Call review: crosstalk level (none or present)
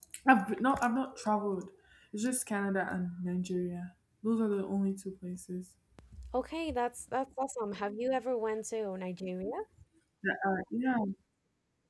none